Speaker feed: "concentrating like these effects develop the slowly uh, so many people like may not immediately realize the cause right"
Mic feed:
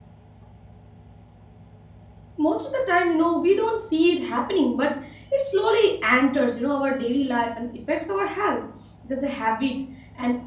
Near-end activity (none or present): present